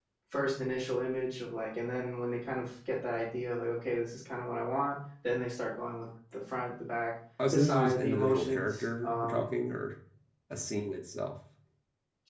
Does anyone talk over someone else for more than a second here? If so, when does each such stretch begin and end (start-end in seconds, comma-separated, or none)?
7.5-9.5